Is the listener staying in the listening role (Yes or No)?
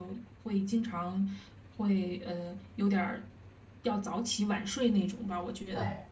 No